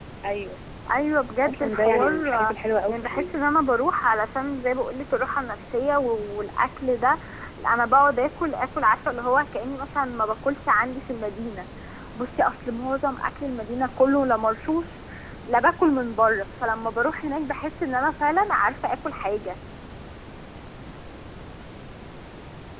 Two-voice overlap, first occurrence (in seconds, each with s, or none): 1.4 s